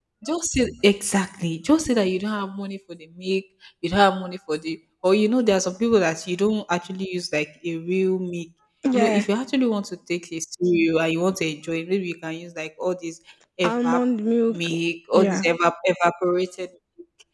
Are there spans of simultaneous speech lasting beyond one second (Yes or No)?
No